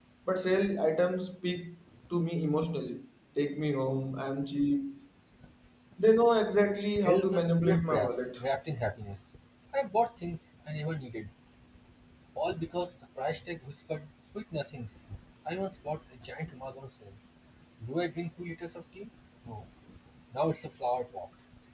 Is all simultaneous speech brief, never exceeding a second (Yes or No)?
No